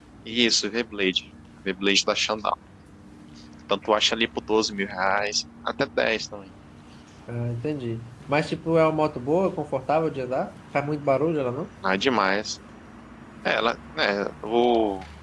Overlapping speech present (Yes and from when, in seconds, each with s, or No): No